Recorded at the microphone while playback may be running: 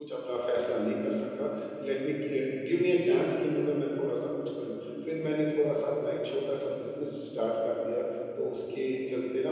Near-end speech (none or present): present